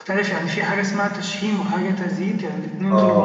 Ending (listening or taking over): taking over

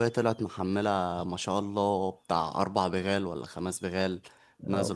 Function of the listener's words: listening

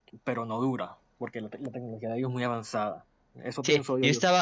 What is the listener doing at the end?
taking over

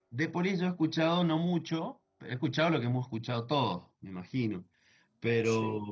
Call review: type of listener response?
listening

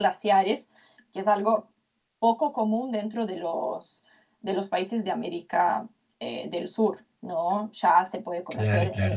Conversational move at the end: listening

